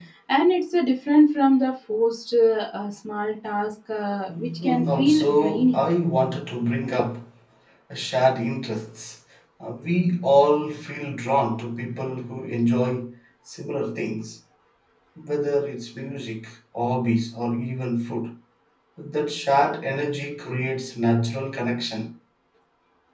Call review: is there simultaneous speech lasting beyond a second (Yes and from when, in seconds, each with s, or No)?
Yes, from 4.3 s